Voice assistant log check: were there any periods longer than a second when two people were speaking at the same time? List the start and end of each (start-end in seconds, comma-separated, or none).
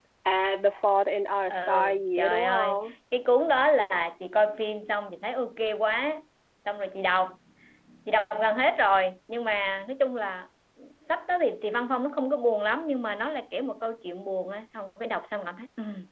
1.5-2.8